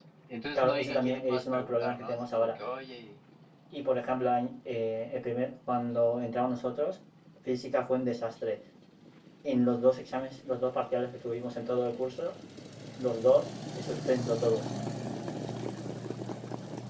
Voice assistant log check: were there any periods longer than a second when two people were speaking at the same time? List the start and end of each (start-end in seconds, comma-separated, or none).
0.5-2.6